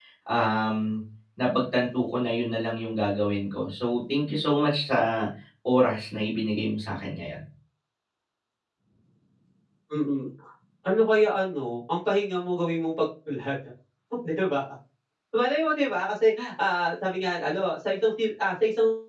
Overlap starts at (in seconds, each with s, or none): none